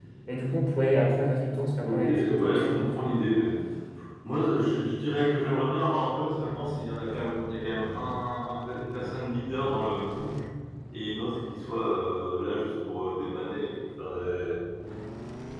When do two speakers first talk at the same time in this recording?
2 s

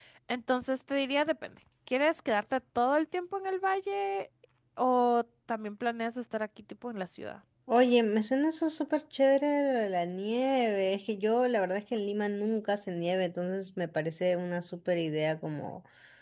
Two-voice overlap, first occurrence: none

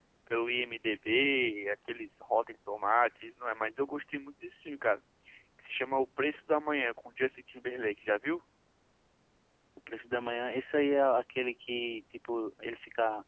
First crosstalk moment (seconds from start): none

